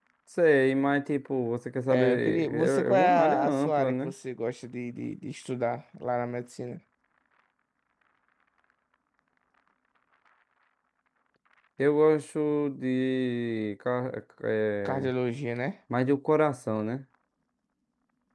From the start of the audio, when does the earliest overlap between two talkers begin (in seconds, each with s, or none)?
1.9 s